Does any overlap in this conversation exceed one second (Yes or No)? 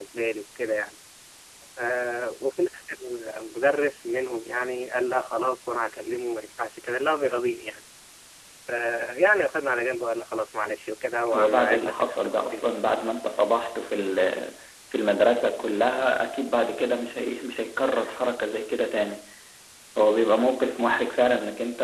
Yes